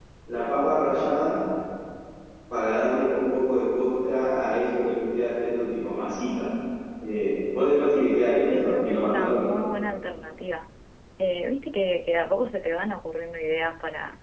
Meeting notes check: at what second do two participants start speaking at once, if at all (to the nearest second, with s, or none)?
8 s